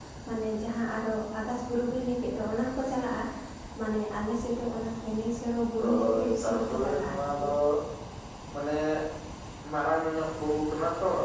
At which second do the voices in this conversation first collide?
5.8 s

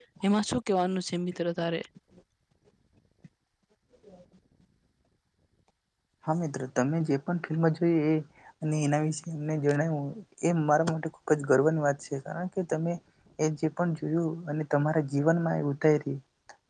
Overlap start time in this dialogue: none

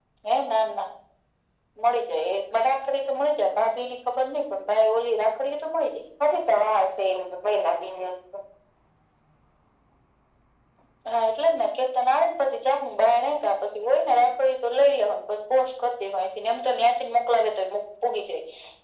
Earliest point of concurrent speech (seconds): none

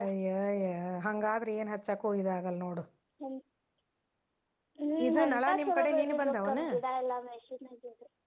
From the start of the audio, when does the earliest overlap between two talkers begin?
5.1 s

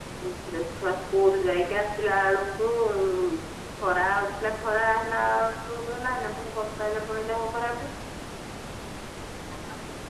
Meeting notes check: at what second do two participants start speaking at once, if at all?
none

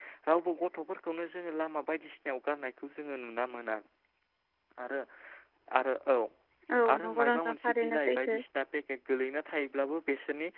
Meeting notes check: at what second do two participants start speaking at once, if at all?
6.9 s

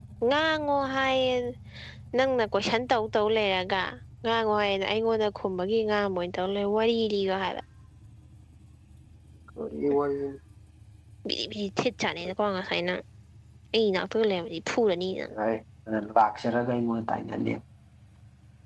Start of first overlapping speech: none

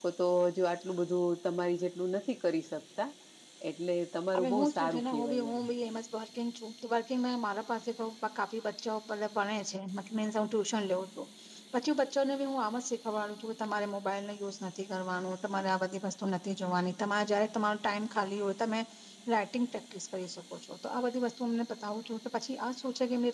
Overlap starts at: 4.4 s

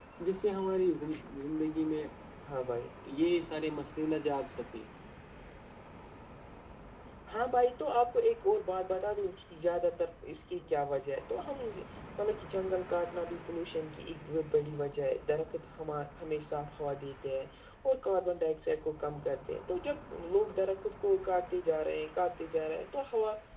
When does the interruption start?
none

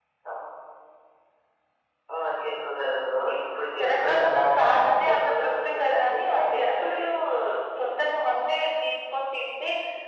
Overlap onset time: 3.3 s

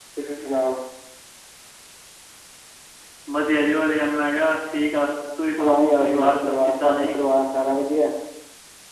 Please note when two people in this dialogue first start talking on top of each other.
5.6 s

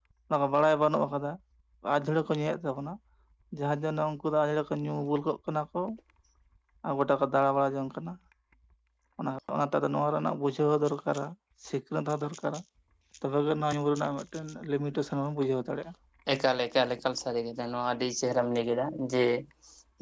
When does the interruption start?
none

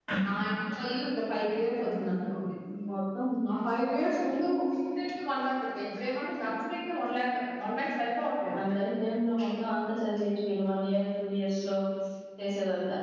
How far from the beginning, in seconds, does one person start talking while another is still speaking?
none

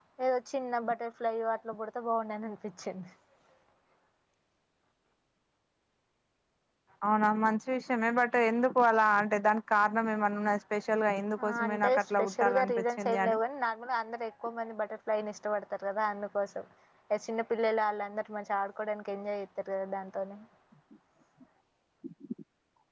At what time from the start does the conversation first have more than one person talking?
11.7 s

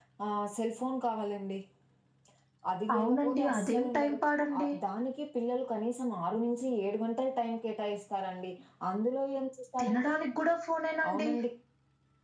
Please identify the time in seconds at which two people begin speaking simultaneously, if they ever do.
3.0 s

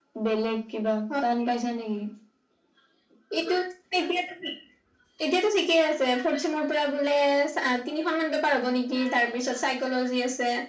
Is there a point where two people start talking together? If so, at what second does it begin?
none

